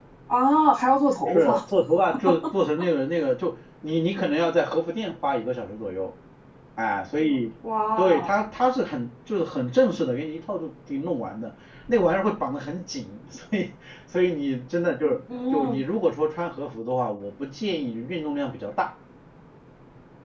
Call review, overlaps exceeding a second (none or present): none